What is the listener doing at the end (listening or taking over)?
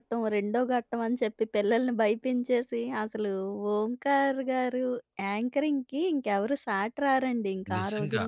taking over